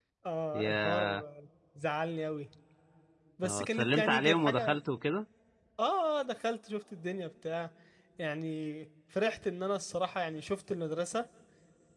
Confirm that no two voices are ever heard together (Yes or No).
No